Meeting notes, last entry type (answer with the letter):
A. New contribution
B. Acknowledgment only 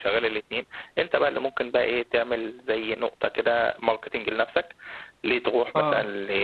B